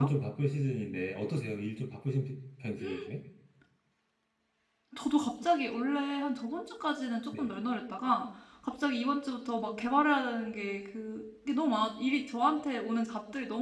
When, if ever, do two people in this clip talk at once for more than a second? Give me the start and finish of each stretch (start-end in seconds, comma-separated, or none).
none